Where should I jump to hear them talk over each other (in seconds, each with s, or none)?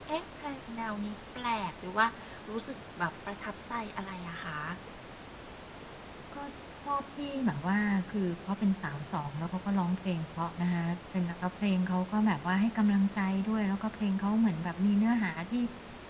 none